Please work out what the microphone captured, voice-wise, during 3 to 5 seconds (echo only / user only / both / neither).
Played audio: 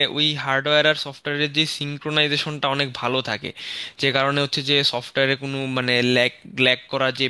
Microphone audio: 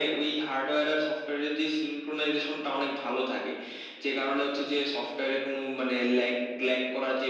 echo only